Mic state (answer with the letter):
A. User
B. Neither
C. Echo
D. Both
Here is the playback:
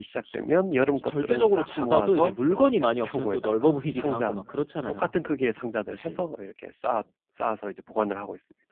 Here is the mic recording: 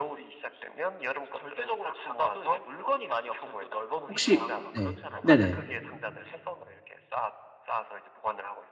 D